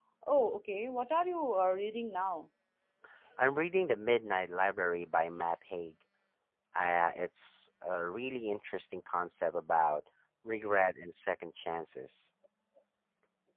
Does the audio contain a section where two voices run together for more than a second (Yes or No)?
No